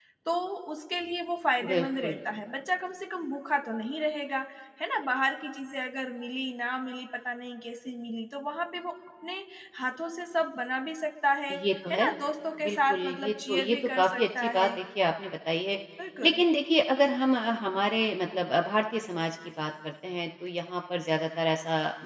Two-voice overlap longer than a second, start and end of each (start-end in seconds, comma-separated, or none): 12.7-14.7